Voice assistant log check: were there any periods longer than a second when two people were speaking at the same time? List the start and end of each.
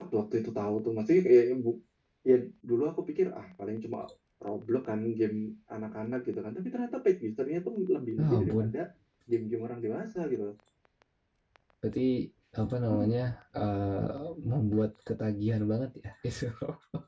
none

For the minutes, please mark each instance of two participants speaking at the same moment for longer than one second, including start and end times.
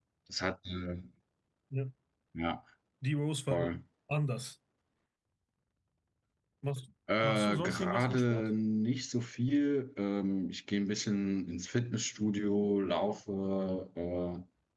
7.2-8.5

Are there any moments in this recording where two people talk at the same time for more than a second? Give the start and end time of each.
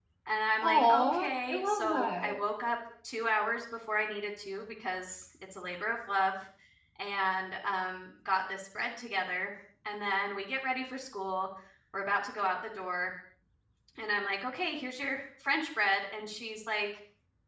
0.6-2.4

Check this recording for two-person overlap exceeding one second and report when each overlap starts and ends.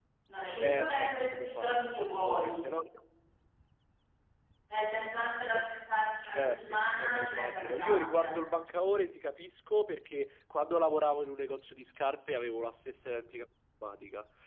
0.6-2.6, 6.4-8.3

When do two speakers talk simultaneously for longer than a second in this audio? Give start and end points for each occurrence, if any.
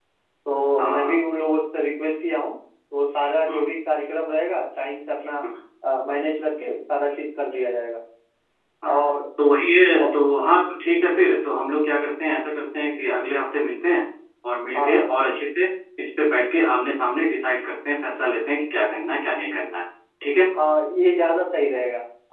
none

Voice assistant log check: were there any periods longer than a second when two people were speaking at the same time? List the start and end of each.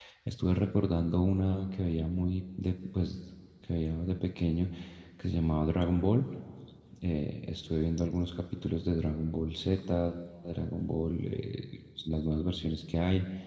none

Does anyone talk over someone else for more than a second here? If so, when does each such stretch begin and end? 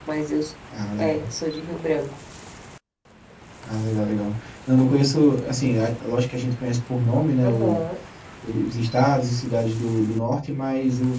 none

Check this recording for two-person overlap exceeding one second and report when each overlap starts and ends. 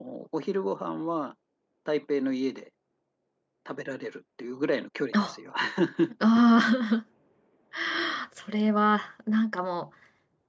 none

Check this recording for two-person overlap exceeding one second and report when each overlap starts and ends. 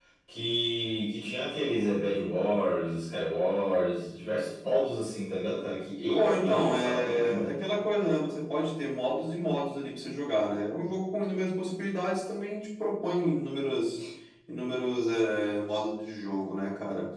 6.2-7.5

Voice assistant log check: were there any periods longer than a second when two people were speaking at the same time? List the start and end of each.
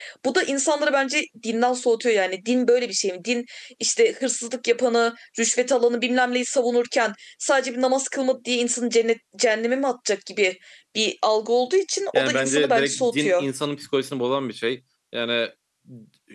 12.1-13.4

